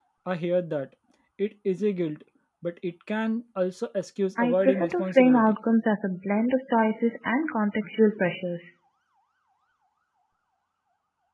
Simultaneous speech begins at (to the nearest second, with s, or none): 4 s